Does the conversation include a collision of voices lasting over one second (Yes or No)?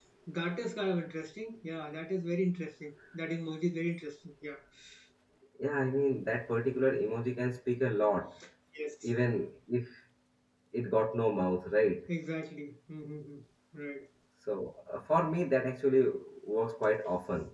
No